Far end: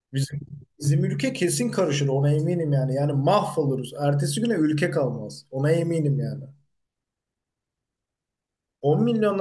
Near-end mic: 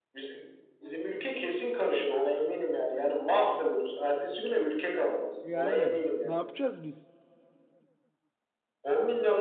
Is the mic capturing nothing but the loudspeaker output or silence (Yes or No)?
No